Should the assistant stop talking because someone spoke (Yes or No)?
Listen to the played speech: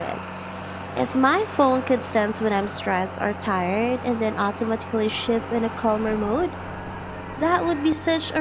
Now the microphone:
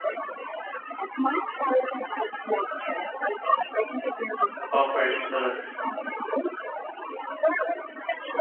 Yes